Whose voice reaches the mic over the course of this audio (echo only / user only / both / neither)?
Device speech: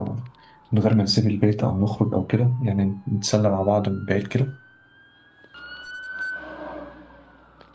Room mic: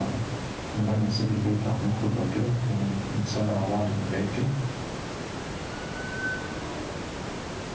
echo only